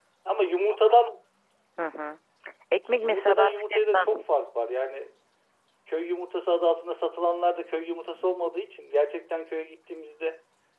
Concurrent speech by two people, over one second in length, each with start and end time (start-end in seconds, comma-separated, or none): 2.8-4.1